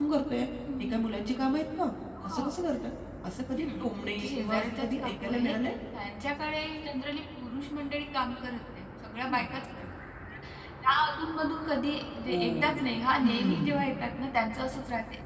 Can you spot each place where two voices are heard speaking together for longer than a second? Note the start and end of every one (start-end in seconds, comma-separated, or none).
3.5-5.5, 12.3-13.8